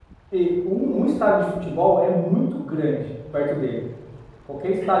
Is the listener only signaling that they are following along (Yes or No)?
Yes